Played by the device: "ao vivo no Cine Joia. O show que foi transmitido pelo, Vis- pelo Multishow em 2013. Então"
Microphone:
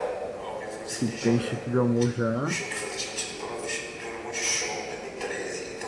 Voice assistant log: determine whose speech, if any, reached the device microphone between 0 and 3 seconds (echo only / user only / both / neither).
both